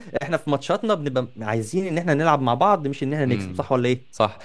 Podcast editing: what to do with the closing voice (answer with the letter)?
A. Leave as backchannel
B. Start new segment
B